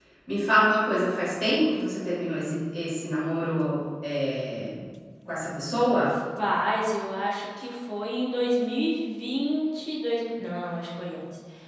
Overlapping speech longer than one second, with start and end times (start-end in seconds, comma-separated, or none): none